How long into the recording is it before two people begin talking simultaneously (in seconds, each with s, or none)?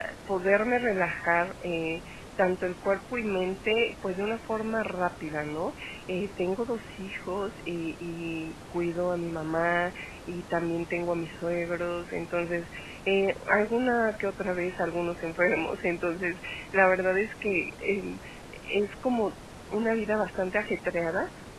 none